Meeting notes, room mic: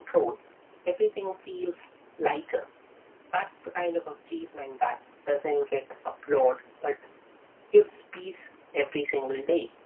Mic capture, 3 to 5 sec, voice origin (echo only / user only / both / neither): echo only